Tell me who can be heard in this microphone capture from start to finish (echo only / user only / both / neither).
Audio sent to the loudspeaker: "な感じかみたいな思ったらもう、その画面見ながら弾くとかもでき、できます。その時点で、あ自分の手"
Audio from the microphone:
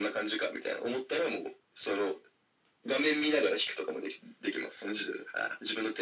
echo only